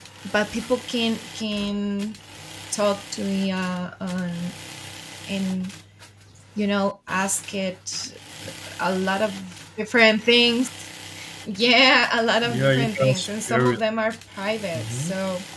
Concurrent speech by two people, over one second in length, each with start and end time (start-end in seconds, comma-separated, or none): 12.4-13.8